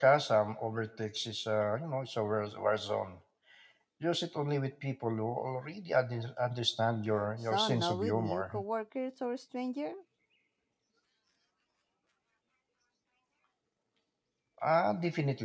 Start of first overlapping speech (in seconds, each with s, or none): 7.4 s